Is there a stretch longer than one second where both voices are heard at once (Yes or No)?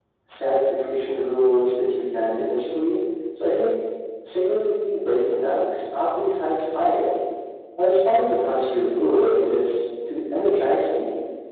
No